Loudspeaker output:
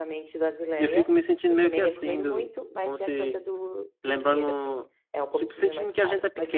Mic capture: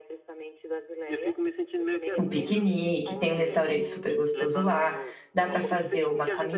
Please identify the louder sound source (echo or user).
user